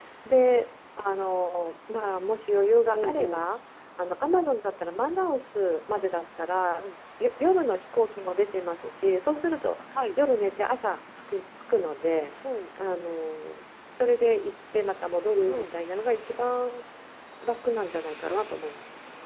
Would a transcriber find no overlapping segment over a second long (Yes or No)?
Yes